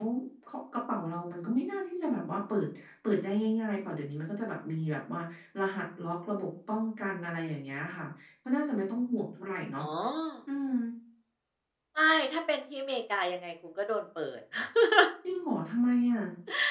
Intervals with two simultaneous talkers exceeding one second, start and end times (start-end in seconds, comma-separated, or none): none